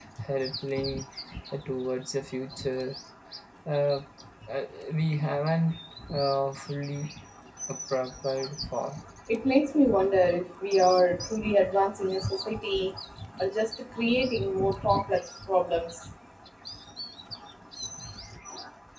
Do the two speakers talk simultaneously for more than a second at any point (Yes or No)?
No